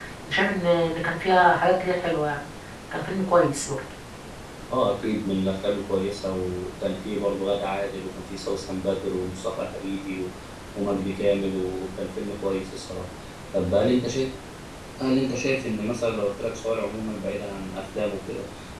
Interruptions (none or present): none